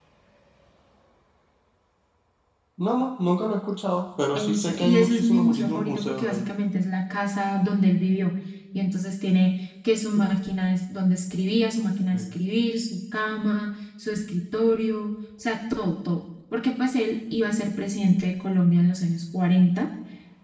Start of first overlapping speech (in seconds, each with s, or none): 4.3 s